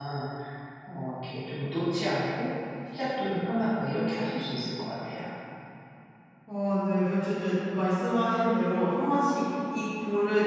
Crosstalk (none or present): none